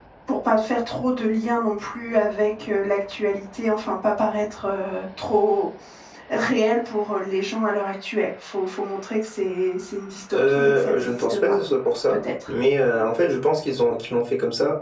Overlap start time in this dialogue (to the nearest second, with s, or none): 10 s